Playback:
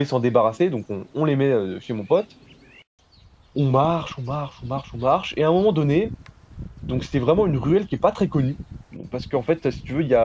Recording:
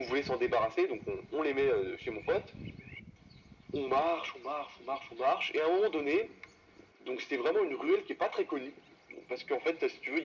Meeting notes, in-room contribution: none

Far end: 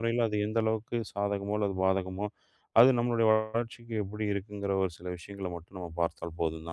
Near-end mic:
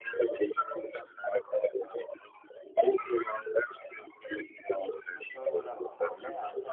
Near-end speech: present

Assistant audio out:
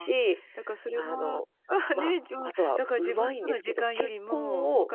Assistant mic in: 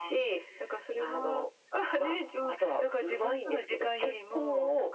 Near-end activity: none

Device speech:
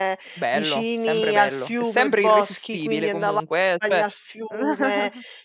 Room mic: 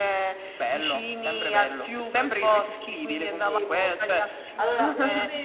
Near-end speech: present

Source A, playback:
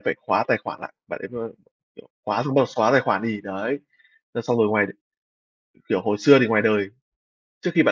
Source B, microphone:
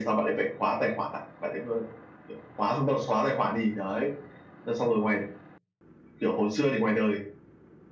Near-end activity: none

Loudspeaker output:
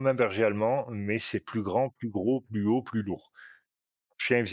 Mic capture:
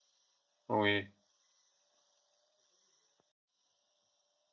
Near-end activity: present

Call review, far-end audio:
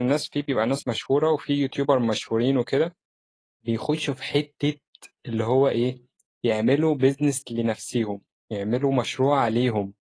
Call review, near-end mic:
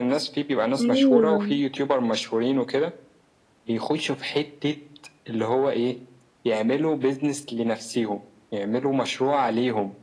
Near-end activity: present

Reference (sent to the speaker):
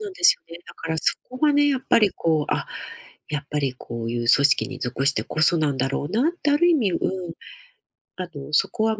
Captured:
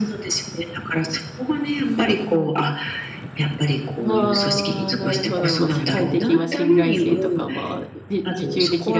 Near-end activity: present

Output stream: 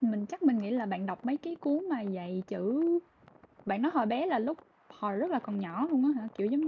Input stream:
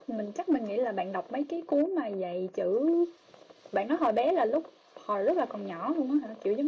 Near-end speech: none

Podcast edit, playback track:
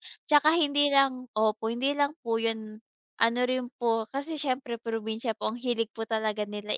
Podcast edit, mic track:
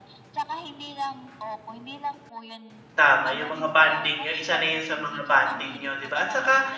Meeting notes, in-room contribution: present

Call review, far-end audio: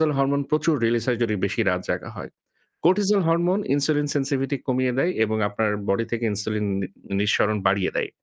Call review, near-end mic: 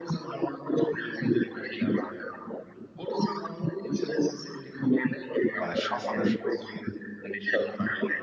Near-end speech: present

